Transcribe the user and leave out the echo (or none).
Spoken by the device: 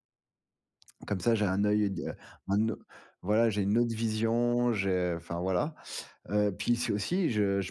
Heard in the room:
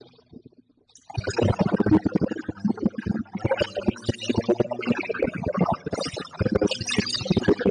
none